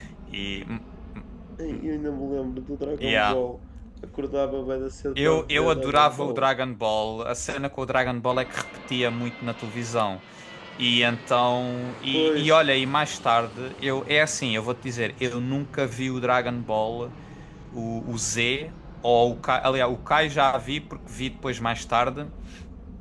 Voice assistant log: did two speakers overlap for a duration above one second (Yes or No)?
Yes